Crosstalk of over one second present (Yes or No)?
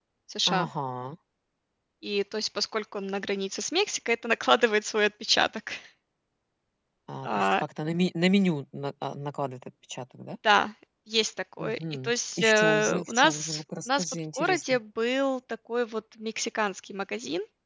Yes